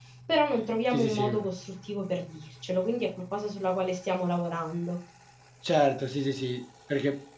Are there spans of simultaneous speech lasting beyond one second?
No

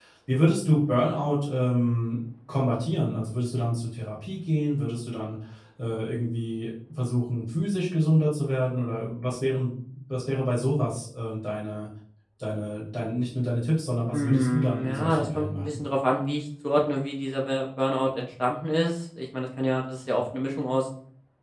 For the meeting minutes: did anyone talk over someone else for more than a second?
Yes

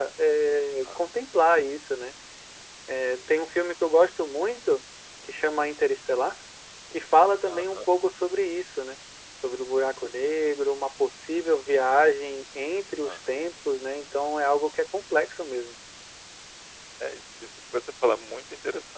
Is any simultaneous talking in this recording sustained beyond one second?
No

